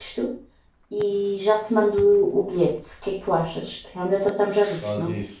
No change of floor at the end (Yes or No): No